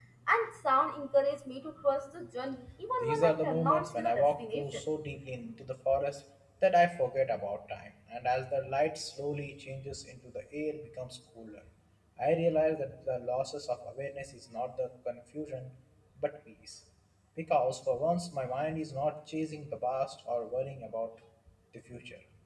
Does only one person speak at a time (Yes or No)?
No